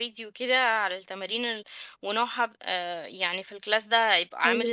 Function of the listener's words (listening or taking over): listening